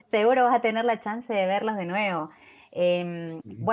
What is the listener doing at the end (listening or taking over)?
listening